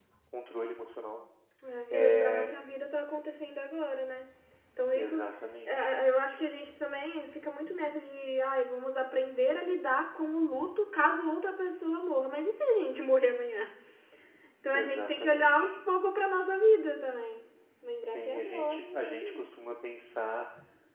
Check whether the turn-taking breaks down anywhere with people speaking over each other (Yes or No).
Yes